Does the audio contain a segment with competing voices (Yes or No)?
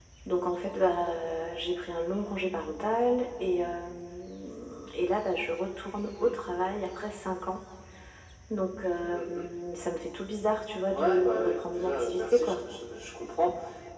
Yes